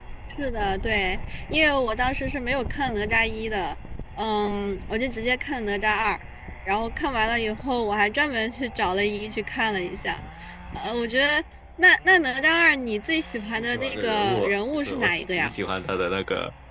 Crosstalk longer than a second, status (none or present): present